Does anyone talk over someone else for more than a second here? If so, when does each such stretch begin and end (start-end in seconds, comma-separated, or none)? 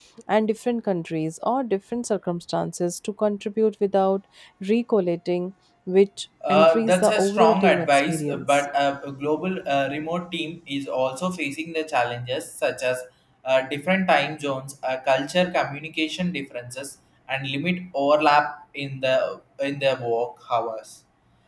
6.5-8.7